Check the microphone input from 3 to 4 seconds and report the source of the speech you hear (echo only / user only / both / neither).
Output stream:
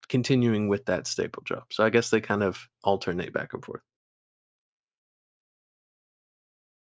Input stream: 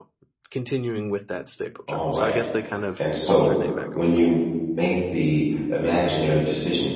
both